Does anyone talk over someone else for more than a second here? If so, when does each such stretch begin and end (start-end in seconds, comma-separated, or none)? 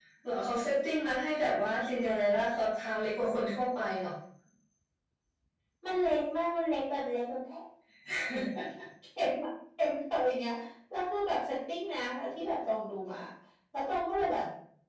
none